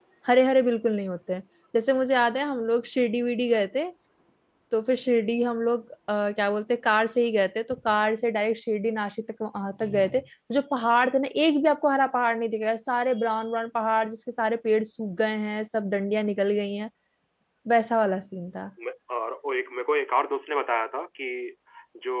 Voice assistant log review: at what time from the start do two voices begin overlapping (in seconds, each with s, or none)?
none